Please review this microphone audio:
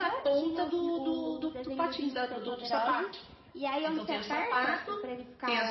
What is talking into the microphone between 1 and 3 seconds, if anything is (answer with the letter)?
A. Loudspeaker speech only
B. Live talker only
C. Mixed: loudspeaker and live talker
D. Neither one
A